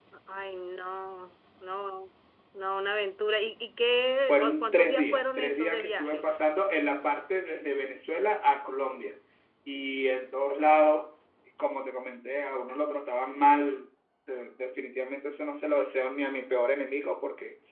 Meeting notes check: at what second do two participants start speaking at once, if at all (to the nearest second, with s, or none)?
4 s